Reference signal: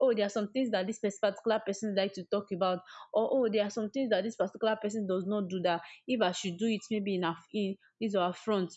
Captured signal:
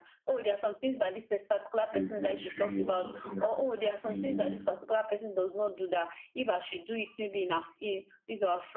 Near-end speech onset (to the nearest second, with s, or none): 2 s